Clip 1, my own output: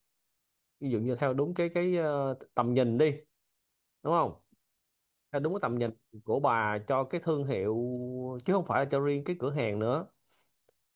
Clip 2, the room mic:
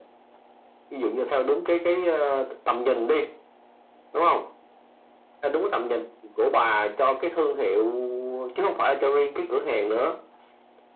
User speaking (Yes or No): No